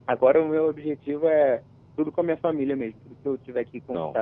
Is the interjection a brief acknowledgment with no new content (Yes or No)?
Yes